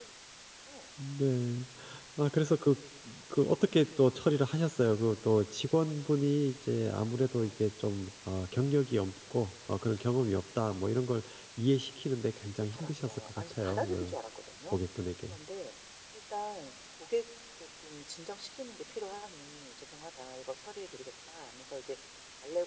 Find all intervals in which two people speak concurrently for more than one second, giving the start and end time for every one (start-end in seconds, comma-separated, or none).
12.6-14.1